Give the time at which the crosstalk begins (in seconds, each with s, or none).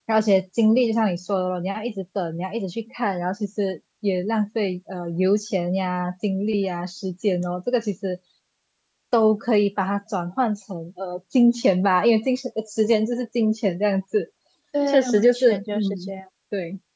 14.9 s